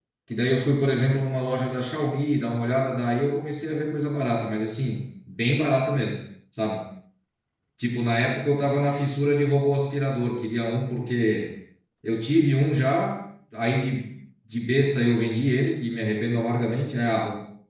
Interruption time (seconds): none

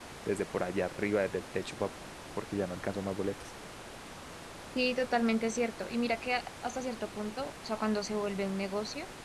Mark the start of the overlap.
none

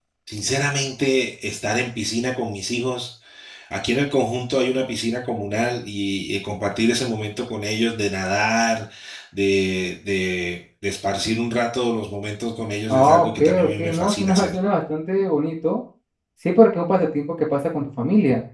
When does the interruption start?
13 s

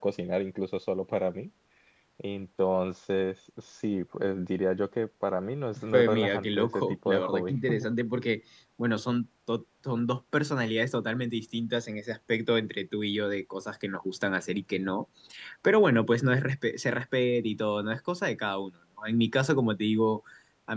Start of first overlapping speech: 6 s

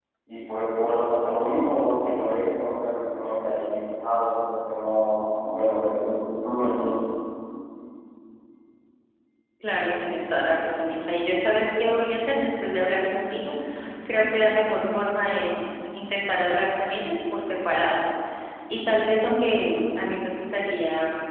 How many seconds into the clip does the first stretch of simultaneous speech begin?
none

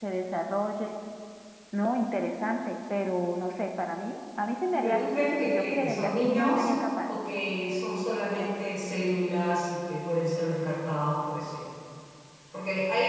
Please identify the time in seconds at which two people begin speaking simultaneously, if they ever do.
5 s

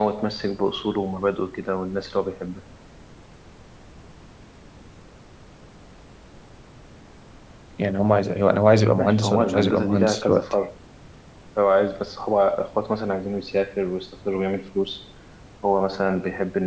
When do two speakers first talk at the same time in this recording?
9 s

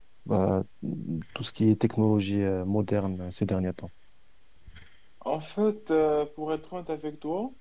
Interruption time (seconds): none

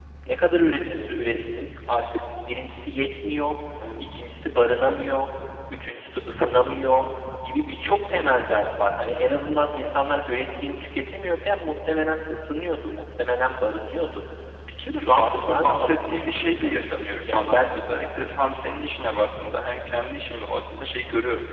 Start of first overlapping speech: 15 s

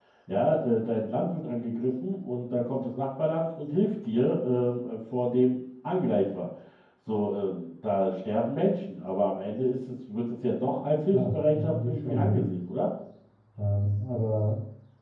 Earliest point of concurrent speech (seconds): 11 s

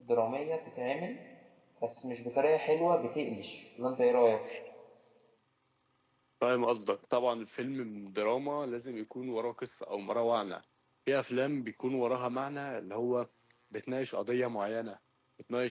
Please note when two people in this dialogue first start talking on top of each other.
none

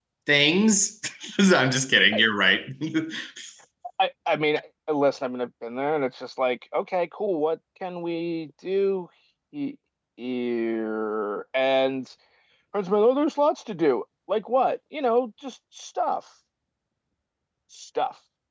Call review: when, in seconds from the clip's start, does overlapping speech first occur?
none

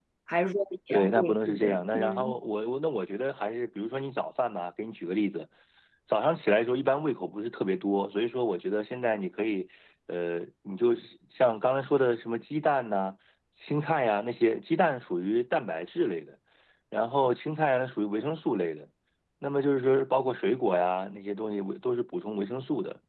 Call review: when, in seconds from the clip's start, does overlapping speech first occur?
1 s

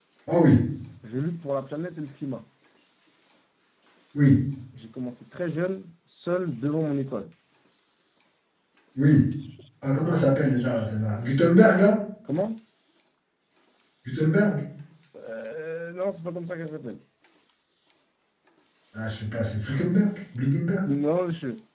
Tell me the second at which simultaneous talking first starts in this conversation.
none

